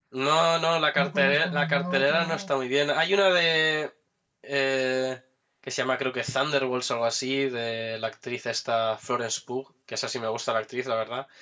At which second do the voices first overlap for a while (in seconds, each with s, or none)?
1.0 s